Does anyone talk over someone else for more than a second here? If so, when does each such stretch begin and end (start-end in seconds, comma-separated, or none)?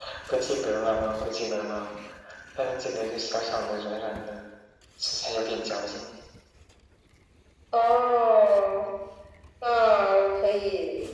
none